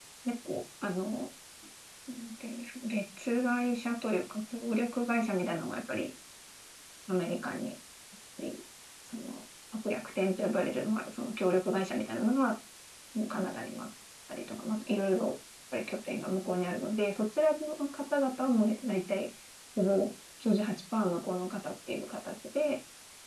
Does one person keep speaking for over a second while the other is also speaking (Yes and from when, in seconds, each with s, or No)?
No